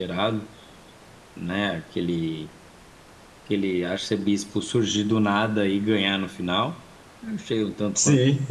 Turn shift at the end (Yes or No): Yes